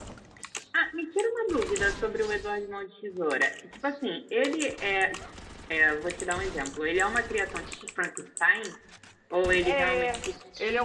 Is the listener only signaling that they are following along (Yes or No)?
No